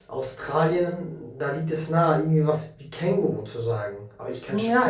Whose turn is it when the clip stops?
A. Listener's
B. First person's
A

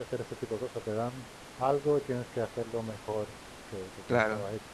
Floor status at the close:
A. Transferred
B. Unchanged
A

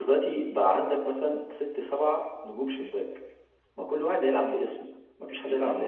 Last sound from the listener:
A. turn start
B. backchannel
A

